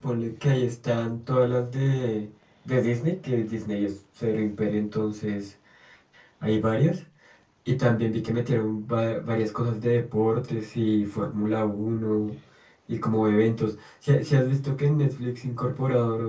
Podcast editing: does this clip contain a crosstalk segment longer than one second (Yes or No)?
No